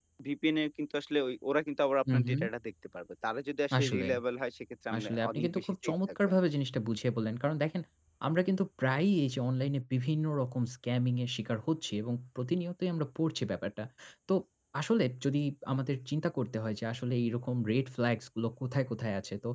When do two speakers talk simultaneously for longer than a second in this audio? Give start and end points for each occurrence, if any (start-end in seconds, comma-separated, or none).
5.0-6.4